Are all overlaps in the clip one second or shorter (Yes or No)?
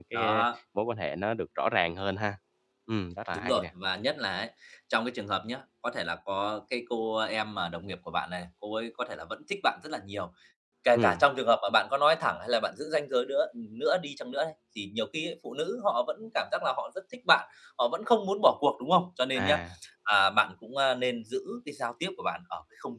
Yes